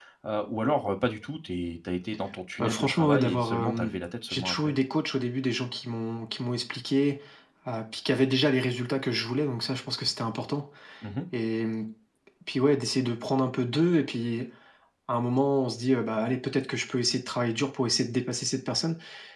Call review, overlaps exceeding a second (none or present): present